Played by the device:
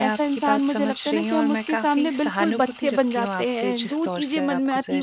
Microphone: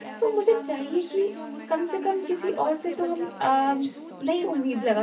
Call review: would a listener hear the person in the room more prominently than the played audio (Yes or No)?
Yes